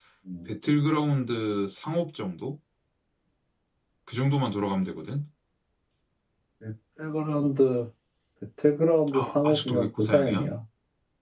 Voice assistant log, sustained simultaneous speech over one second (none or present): present